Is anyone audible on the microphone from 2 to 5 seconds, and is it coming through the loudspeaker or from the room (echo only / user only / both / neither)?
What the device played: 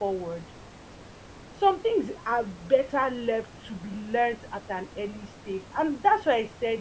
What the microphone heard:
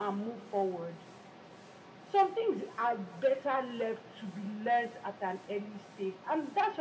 echo only